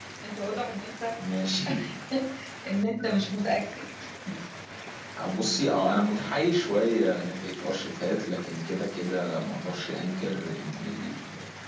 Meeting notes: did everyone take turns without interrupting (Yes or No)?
Yes